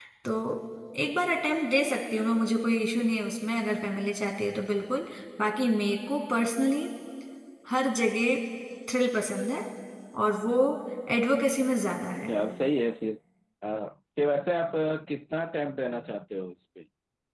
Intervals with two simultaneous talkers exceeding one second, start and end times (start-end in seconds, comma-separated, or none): none